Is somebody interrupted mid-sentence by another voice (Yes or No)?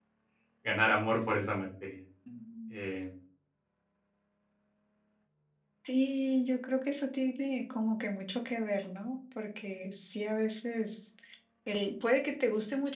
No